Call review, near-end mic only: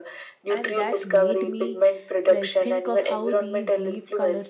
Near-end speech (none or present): present